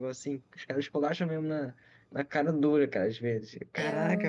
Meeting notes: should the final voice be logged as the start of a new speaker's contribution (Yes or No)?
Yes